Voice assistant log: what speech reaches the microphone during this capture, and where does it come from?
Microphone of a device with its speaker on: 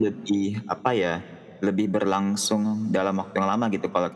echo only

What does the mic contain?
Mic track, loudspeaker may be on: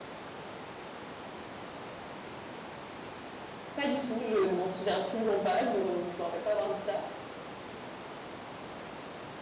user only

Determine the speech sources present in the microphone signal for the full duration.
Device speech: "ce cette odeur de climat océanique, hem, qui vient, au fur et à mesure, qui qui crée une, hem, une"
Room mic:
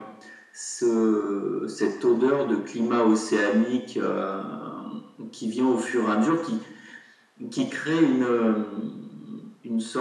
echo only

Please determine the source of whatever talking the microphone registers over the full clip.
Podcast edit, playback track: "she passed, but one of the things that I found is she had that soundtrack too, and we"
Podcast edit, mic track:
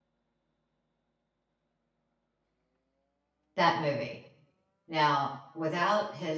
user only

